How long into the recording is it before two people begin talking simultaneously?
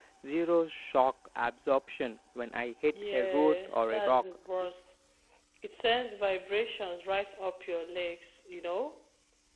2.9 s

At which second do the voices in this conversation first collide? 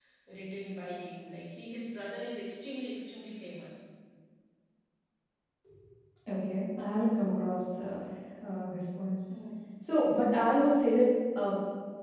none

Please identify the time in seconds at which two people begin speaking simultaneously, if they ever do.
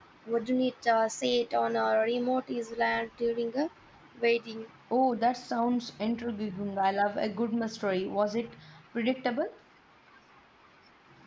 none

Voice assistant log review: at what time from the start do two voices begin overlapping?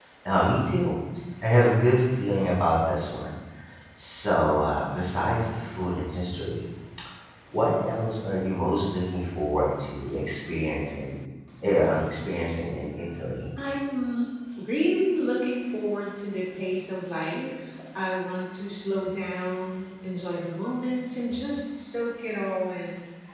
none

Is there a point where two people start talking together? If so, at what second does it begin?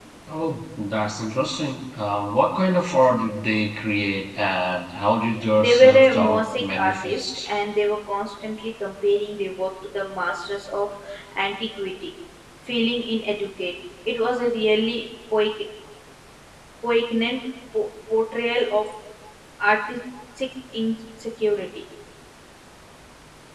5.6 s

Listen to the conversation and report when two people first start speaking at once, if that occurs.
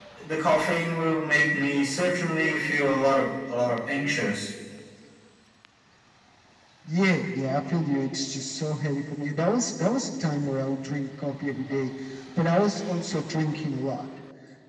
none

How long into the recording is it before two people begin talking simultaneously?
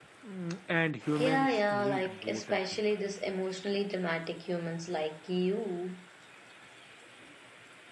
1.2 s

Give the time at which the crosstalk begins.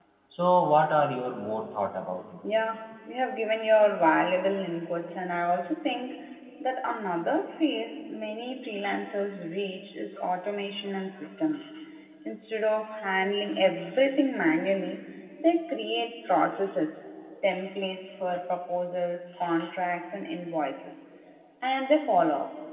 none

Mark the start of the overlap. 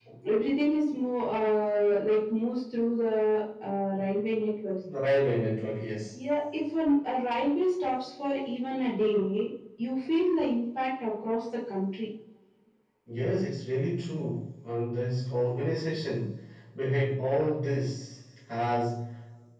none

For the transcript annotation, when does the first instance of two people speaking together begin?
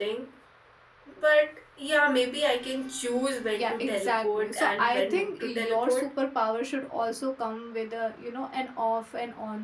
3.5 s

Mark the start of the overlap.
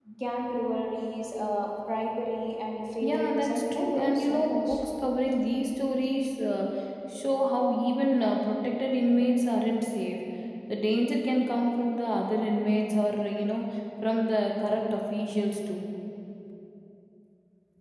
3.0 s

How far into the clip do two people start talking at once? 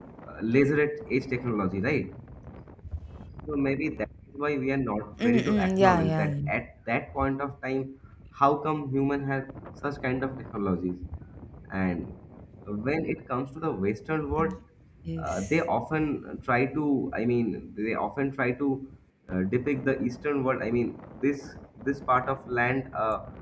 5.2 s

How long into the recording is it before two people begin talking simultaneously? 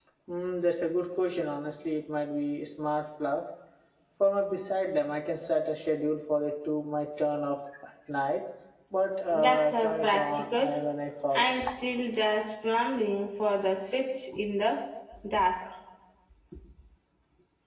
9.3 s

